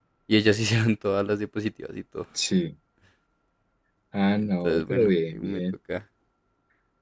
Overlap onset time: 4.4 s

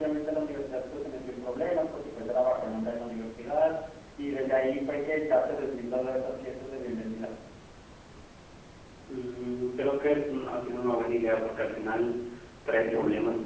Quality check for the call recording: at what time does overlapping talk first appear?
none

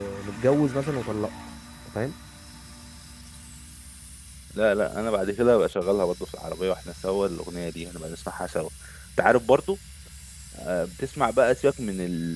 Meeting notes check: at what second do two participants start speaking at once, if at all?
none

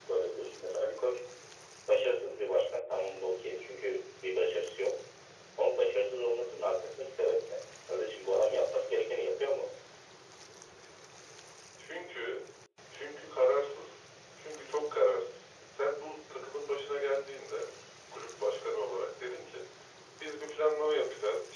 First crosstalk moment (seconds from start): none

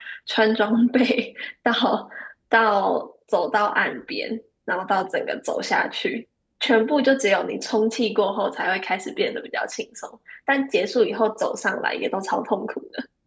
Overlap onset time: none

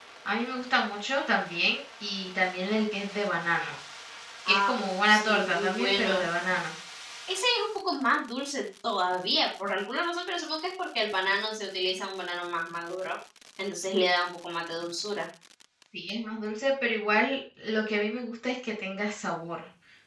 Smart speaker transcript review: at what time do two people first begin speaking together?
4.5 s

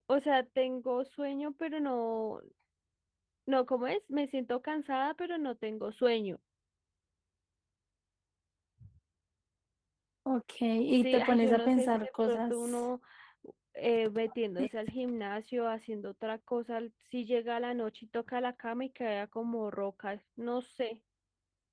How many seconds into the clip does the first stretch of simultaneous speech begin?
11.0 s

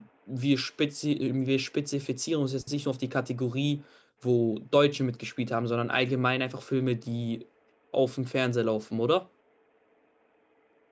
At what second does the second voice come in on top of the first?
none

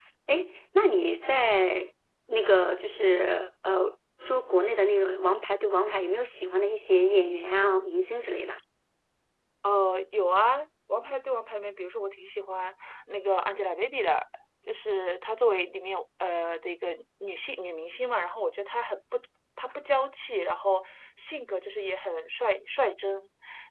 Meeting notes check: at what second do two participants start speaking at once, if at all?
none

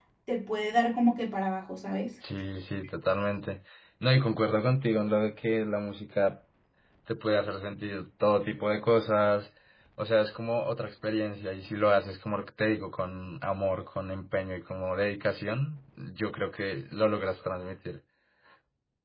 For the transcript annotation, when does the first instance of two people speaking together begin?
none

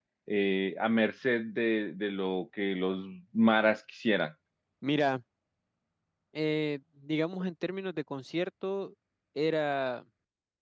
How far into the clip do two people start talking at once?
none

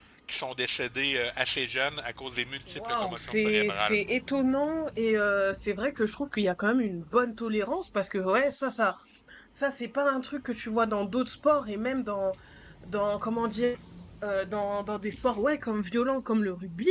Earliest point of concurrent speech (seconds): 2.7 s

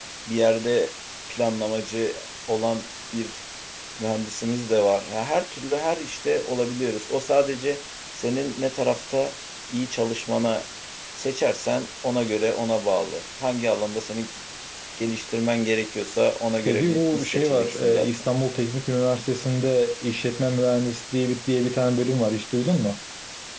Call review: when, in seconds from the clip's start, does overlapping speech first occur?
16.6 s

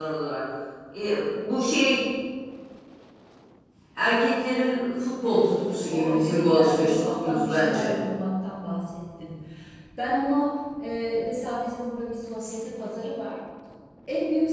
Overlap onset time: 5.2 s

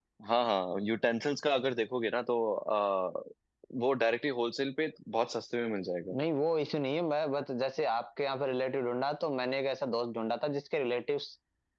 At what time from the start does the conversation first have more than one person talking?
none

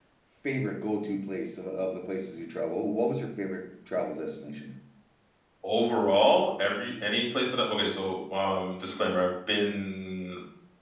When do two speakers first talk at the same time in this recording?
none

